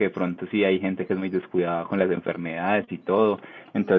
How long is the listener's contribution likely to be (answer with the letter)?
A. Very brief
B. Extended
A